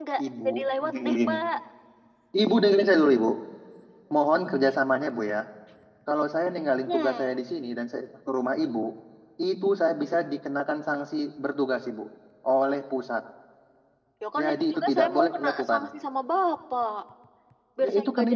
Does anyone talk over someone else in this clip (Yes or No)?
Yes